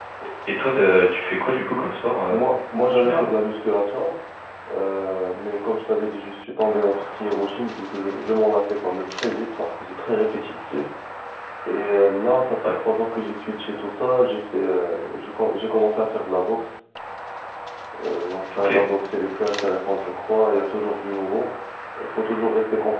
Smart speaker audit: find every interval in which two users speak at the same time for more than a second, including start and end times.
none

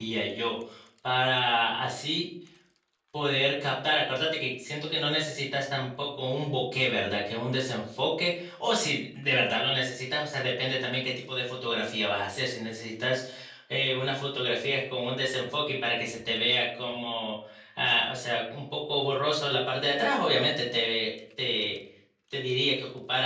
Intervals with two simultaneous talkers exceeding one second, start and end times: none

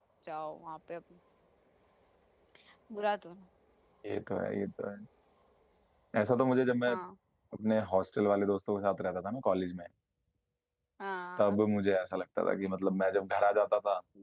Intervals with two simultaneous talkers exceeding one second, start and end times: none

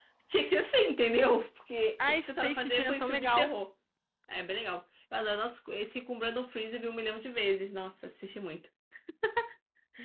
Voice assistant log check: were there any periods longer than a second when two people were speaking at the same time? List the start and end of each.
2.1-3.5

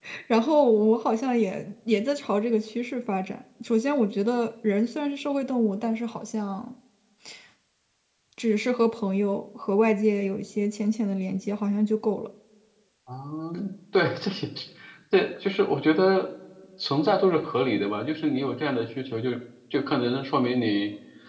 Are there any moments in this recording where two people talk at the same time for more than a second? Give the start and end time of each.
none

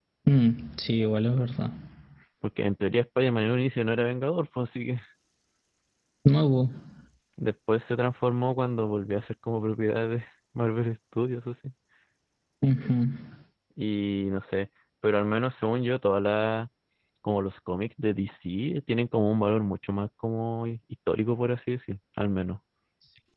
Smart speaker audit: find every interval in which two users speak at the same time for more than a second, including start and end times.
none

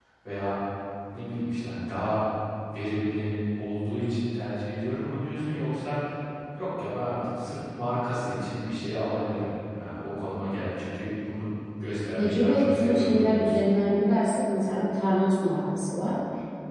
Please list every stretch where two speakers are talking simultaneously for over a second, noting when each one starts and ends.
12.2-13.6

